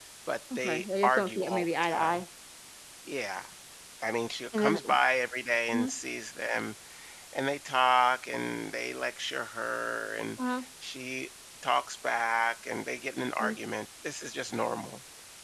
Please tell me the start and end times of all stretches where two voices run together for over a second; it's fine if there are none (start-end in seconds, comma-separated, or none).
0.6-2.2